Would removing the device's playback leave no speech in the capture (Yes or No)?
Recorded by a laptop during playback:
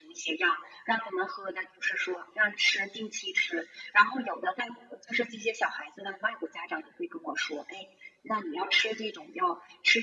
Yes